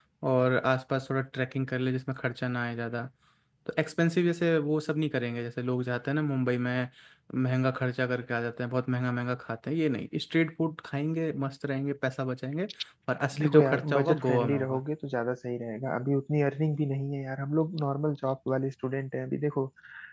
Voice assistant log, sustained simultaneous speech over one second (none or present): present